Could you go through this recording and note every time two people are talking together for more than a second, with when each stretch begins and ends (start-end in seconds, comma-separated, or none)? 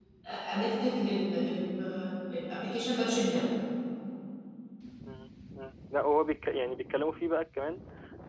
none